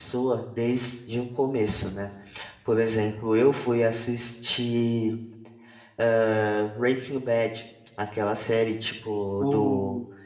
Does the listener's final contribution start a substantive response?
No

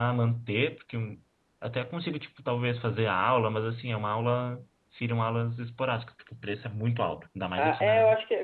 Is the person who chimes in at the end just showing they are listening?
No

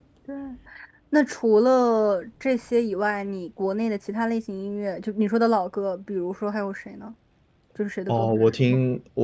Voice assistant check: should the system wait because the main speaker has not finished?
No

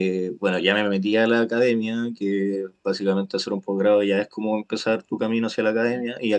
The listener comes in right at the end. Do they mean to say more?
No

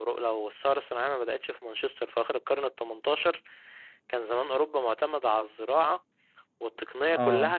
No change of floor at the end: Yes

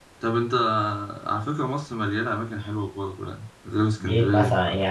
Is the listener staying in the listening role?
No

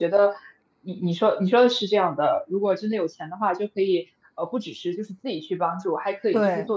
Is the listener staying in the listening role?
Yes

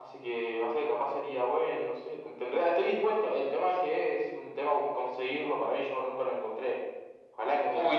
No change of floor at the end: No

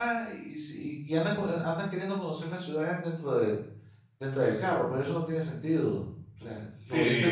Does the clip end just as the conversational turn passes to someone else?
Yes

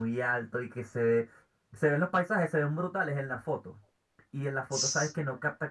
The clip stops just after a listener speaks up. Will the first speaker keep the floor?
Yes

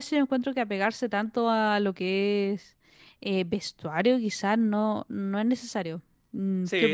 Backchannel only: No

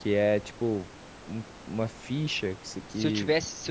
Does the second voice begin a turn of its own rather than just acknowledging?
Yes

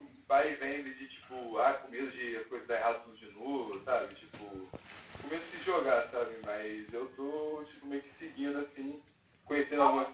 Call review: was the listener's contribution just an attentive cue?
Yes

